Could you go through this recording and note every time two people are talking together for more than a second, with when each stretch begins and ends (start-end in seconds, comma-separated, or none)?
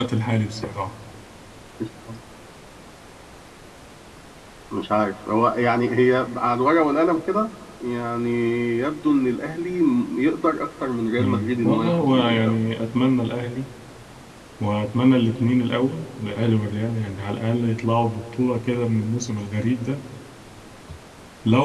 11.2-12.6